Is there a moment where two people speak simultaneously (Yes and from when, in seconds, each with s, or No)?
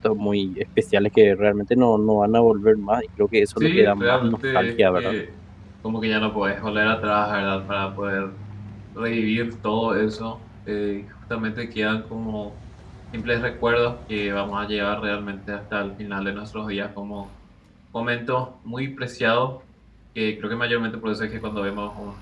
Yes, from 3.6 s